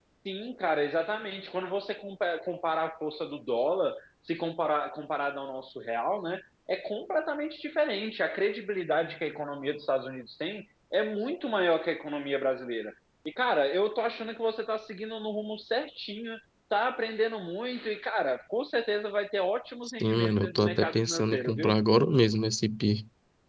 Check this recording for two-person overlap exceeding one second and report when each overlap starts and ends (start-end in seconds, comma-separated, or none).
20.0-21.8